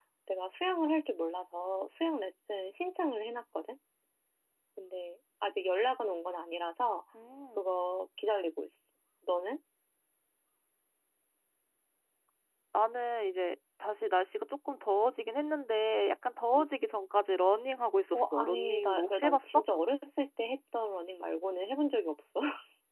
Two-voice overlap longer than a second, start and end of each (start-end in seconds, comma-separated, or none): 18.1-19.6